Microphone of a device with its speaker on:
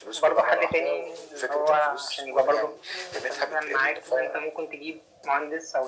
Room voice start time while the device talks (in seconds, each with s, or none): none